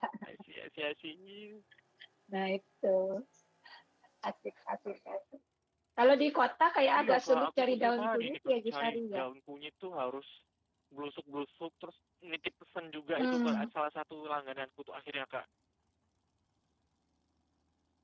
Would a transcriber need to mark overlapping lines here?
Yes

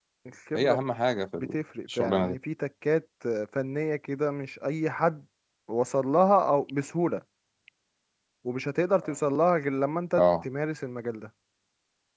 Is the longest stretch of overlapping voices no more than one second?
Yes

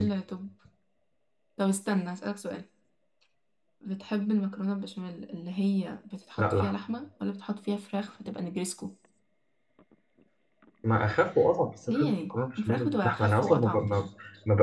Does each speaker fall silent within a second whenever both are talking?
No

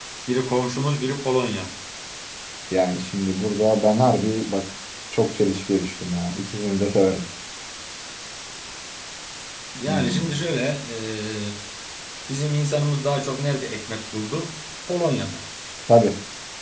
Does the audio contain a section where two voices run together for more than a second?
No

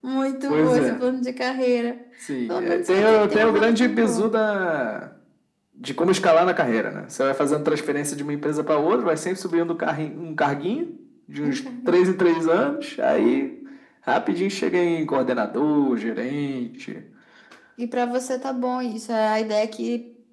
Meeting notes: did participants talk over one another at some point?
Yes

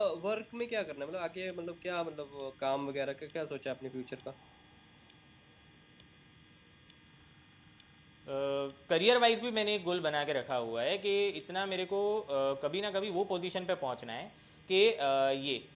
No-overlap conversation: Yes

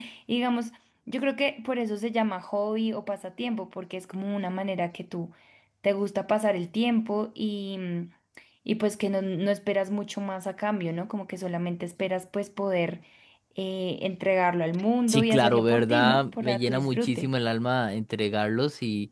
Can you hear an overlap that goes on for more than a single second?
Yes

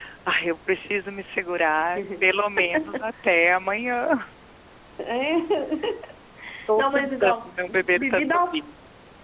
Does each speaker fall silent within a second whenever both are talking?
No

